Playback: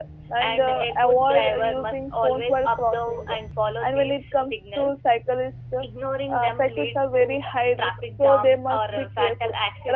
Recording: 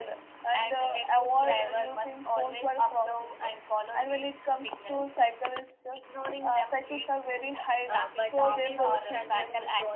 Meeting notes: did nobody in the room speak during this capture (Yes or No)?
No